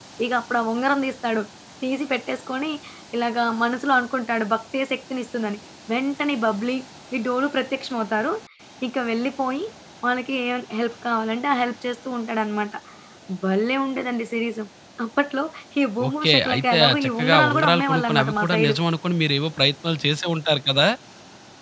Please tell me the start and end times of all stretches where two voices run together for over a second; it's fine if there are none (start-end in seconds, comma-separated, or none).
16.1-18.8